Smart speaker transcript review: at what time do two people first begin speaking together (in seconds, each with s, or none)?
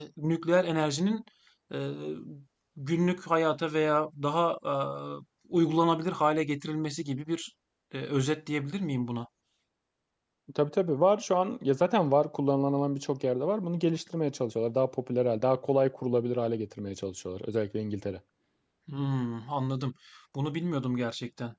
none